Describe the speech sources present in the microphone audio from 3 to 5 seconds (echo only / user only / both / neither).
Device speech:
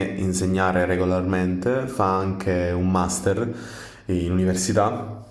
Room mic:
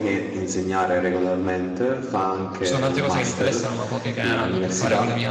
both